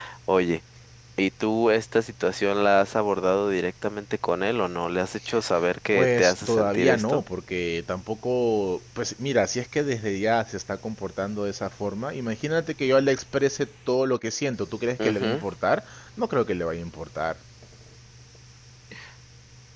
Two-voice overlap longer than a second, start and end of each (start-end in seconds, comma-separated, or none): 5.9-7.2